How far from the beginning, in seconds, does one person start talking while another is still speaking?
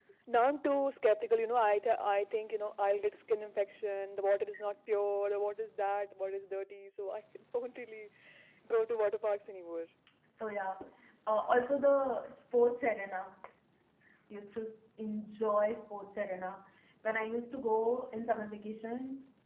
none

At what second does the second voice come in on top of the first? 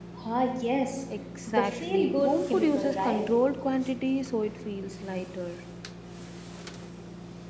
1.5 s

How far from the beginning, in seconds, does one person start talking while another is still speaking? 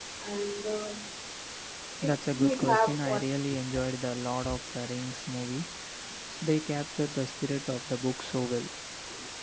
2.0 s

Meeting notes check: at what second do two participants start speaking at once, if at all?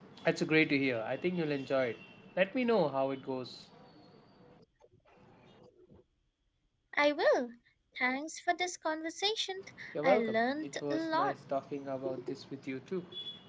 10.0 s

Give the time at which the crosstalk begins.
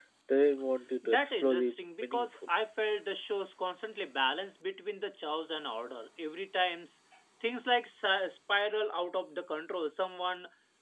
1.0 s

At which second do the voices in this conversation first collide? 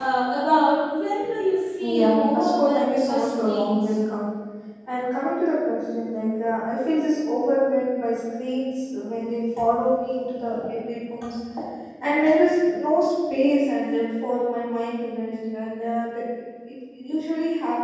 1.8 s

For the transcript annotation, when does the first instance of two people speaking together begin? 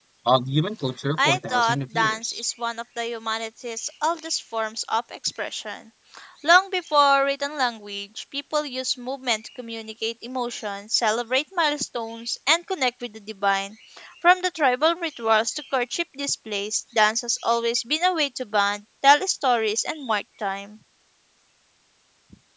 1.2 s

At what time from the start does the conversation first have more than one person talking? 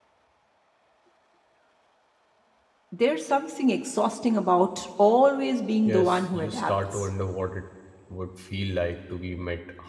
5.8 s

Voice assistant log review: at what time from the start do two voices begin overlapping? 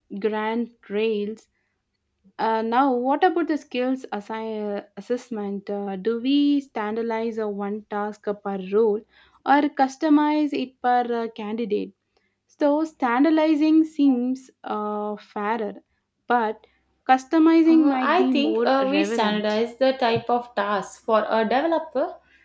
17.7 s

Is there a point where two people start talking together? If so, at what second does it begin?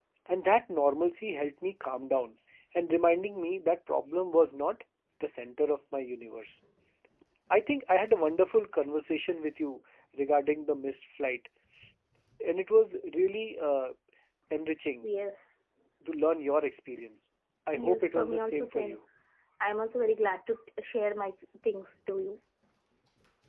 17.8 s

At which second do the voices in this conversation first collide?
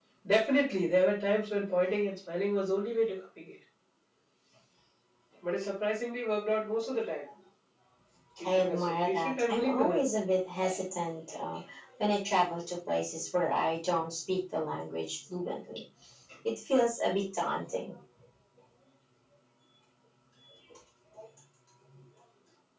8.4 s

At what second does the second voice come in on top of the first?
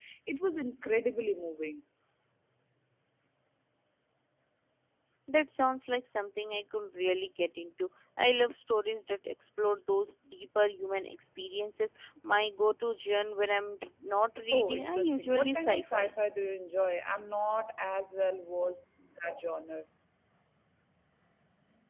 14.5 s

